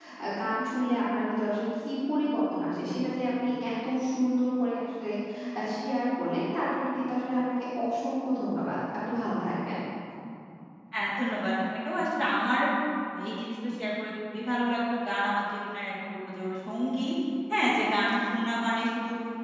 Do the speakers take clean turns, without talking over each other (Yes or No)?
Yes